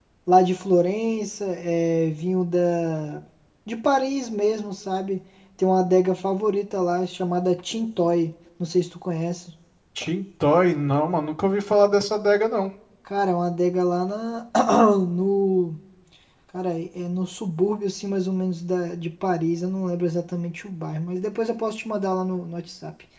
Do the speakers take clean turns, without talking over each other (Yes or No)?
Yes